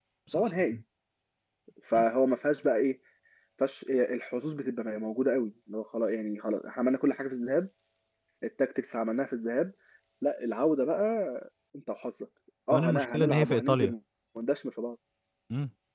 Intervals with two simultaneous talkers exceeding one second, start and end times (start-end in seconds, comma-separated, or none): 12.7-13.9